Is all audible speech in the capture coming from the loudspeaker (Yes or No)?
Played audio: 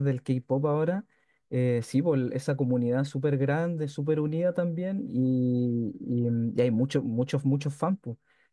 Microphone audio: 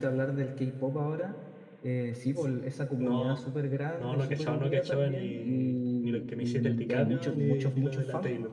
No